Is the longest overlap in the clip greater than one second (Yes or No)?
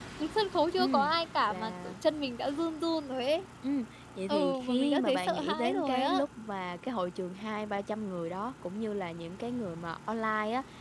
Yes